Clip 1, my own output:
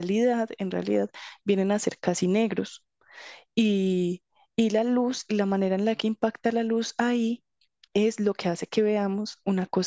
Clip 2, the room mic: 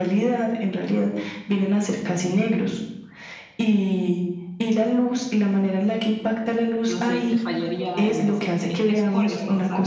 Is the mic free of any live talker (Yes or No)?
No